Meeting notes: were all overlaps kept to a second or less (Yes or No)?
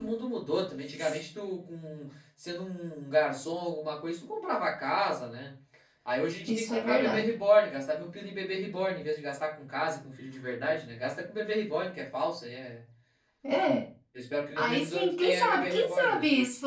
No